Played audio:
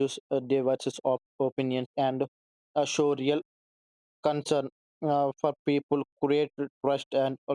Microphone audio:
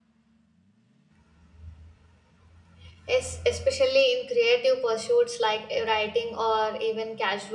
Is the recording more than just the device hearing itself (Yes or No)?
Yes